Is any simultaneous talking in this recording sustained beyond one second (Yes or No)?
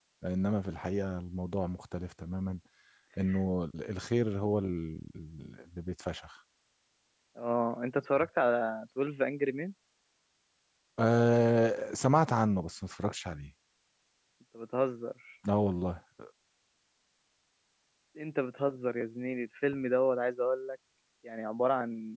No